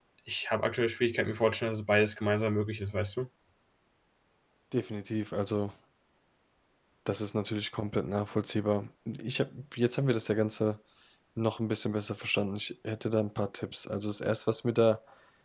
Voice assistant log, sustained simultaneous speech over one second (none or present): none